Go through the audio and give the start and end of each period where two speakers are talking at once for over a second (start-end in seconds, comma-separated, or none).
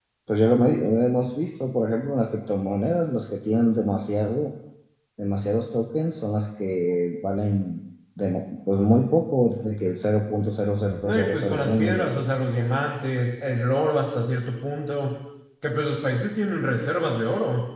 11.0-12.2